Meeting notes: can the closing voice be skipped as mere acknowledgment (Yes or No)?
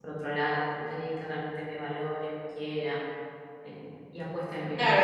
No